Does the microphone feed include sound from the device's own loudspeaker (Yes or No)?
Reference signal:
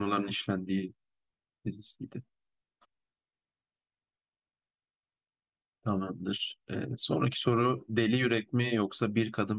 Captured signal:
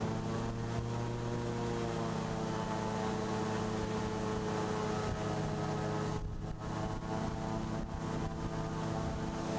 No